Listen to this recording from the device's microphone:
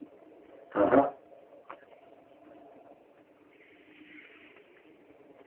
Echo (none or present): none